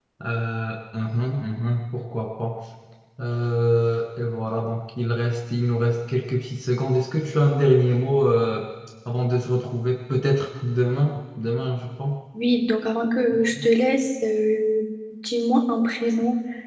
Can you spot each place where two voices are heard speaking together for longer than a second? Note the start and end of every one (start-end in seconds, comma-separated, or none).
none